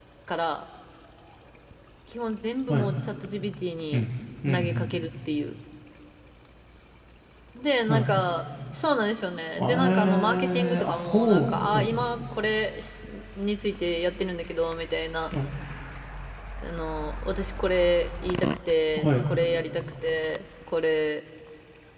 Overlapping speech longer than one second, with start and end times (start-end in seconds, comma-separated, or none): 9.6-11.9